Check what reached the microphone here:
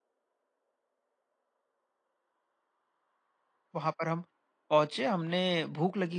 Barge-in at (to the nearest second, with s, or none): 4 s